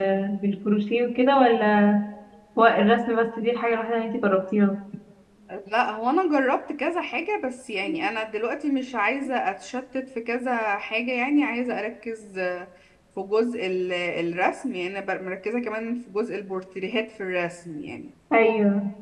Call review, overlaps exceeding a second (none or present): none